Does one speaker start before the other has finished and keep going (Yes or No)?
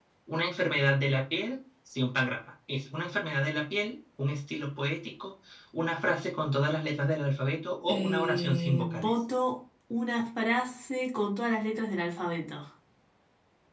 Yes